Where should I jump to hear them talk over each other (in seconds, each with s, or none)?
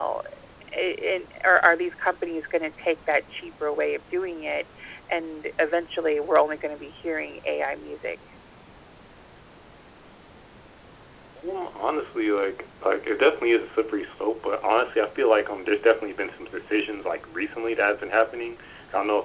none